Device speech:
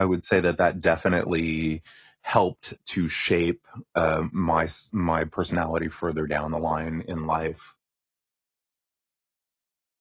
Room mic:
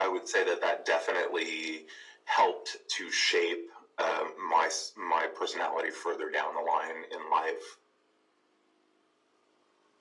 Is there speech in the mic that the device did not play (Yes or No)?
No